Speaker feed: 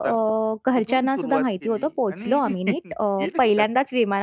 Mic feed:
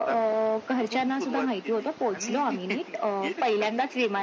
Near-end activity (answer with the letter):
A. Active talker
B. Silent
B